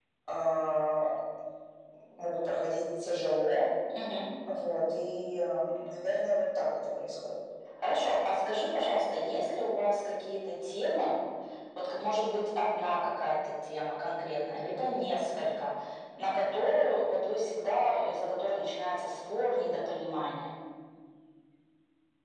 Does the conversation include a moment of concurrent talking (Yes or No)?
No